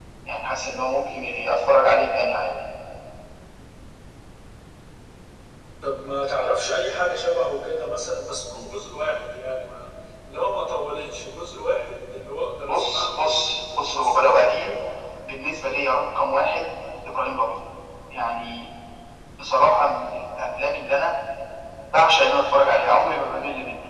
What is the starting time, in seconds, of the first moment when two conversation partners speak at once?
13 s

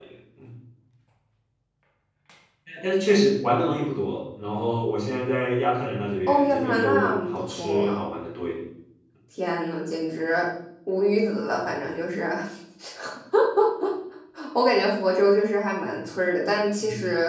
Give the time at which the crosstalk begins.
6 s

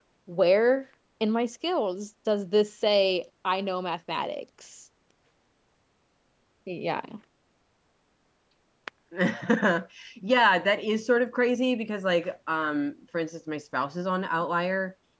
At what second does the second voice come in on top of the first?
none

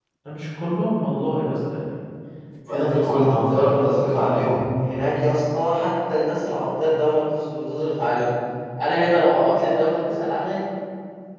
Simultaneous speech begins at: 3 s

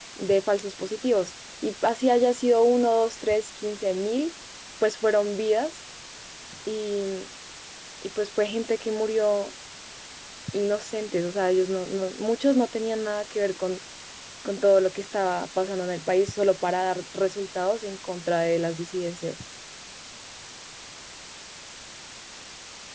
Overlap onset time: none

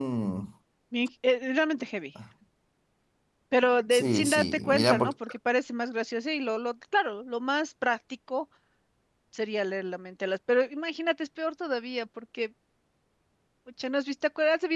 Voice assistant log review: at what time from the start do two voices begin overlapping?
4 s

